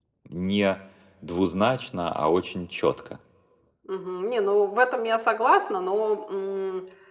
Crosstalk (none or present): none